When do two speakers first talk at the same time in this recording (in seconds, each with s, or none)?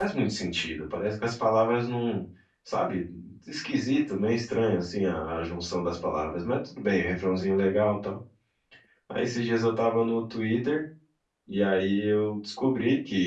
none